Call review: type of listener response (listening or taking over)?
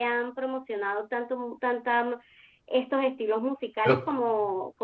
listening